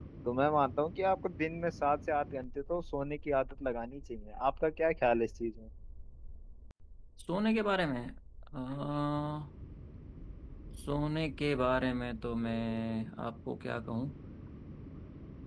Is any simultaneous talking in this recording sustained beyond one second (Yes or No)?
No